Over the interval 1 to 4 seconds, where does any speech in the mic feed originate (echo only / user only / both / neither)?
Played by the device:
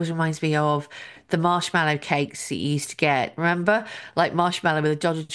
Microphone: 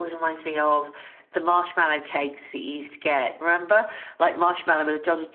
echo only